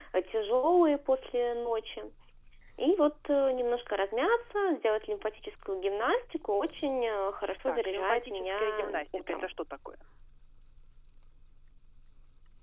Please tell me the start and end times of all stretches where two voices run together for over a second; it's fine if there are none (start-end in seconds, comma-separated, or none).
7.7-9.5